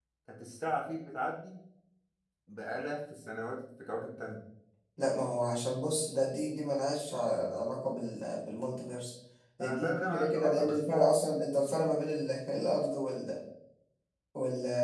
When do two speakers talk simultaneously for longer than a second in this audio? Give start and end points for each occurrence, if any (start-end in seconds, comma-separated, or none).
9.6-11.1